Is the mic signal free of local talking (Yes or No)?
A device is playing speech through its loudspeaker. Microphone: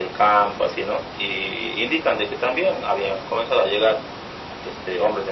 Yes